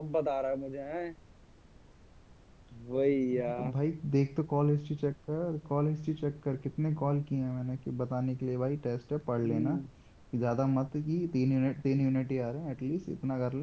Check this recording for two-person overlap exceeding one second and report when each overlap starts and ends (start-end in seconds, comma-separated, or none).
none